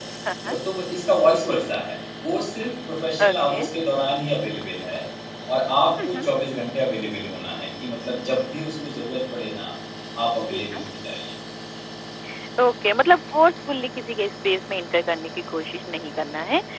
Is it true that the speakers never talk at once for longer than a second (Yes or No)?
Yes